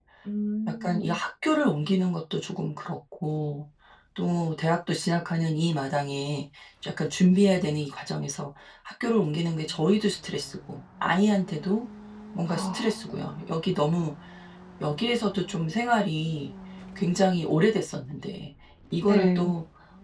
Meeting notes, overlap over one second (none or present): none